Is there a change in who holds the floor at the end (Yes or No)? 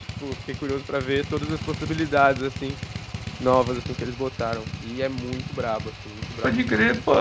Yes